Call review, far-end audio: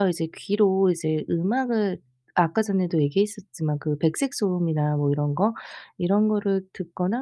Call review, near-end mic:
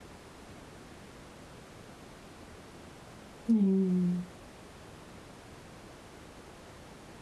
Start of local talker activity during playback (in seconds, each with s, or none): 3.5 s